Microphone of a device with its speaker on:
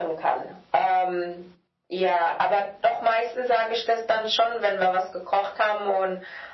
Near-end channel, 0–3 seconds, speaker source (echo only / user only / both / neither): echo only